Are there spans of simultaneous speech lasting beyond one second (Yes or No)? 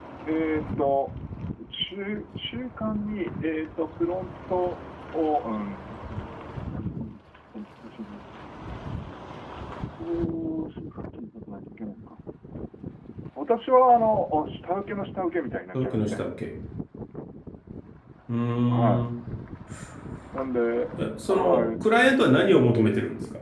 No